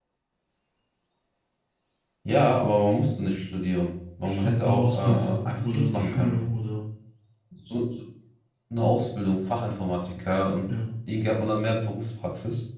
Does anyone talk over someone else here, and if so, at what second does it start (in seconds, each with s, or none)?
4.2 s